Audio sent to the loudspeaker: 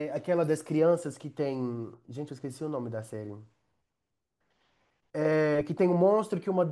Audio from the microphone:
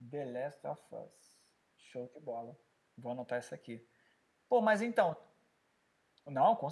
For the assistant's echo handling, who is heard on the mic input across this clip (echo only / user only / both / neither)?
user only